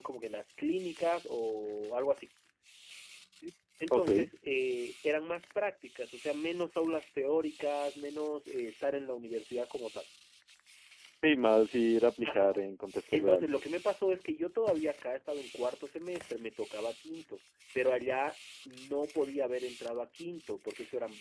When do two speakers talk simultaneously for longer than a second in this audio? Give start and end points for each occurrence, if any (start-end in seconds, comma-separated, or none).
none